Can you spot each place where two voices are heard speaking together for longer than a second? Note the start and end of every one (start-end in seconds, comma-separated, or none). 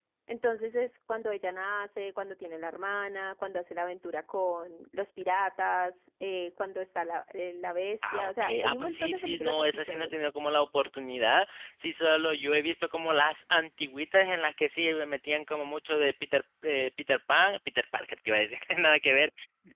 8.0-10.1